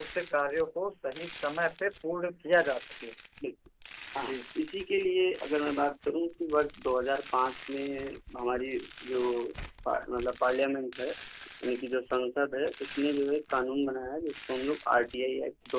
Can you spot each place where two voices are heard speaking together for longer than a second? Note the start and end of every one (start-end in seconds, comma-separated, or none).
none